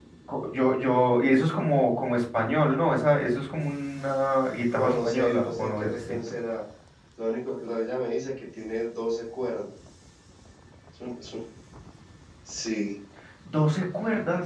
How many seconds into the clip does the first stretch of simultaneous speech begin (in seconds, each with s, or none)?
4.7 s